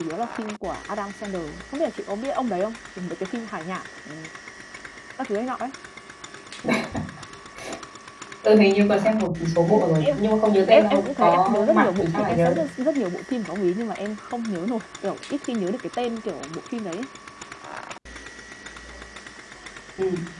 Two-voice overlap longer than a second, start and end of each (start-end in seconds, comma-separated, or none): 10.7-12.6